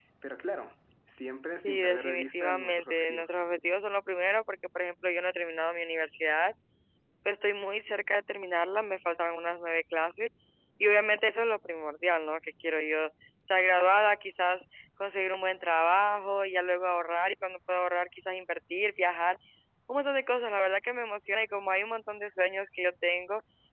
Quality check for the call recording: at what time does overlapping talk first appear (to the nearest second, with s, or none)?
2 s